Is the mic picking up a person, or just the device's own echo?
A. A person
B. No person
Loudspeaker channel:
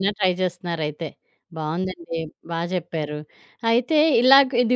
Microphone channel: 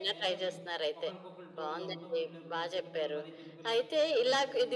A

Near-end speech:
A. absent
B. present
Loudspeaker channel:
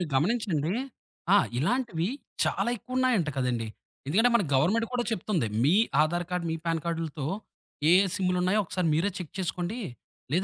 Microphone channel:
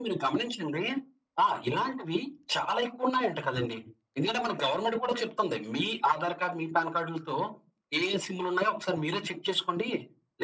A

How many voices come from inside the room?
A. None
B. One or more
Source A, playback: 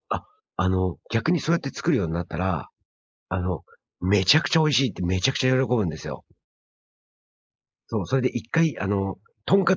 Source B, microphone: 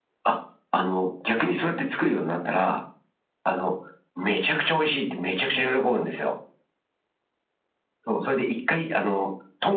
B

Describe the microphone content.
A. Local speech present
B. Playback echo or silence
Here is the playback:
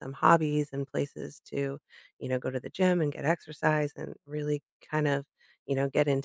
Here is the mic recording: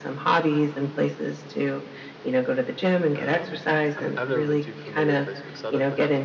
A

